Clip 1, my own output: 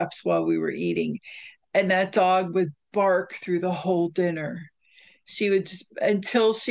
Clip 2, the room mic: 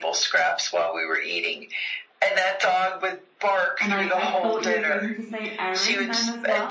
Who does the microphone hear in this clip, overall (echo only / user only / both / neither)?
both